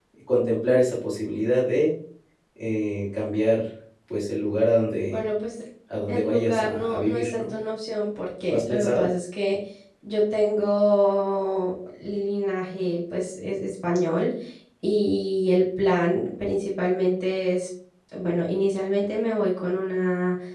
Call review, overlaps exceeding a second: present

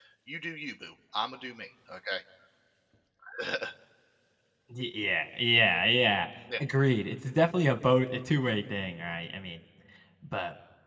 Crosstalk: none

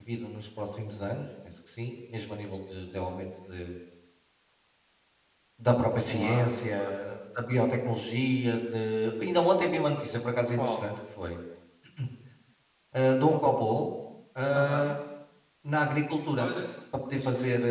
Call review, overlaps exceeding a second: none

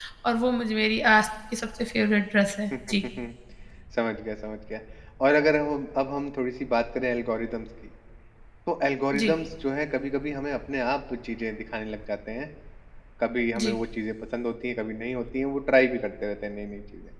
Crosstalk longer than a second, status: none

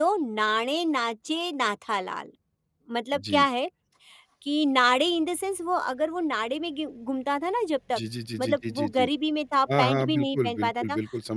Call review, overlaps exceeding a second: present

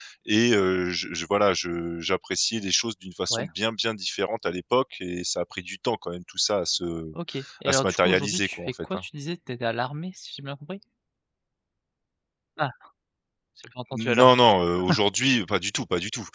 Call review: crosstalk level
present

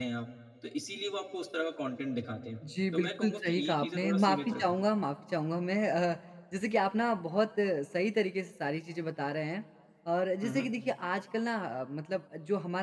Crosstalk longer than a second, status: present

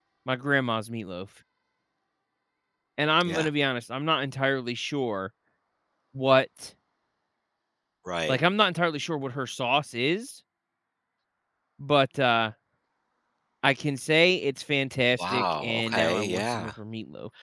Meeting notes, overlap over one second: present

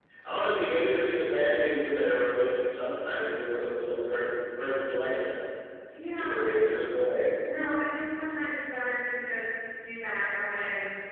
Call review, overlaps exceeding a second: none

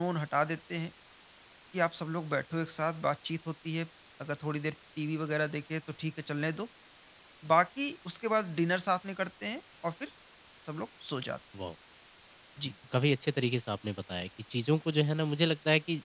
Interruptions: none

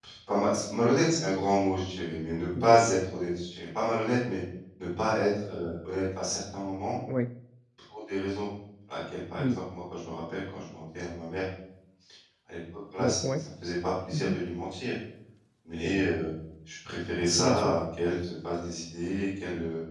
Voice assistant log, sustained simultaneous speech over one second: none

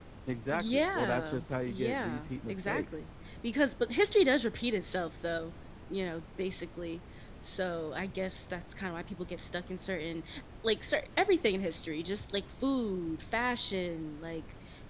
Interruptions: present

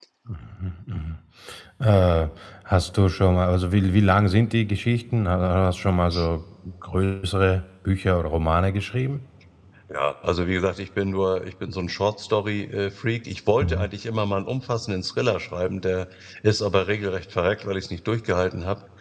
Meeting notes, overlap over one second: none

